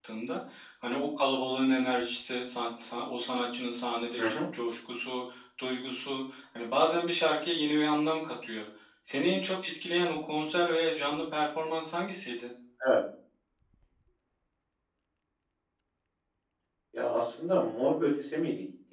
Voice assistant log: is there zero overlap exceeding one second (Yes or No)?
Yes